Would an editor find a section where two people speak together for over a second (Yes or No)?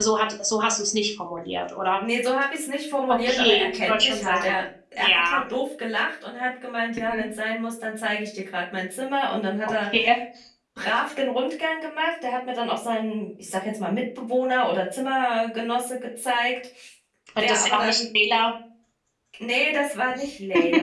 Yes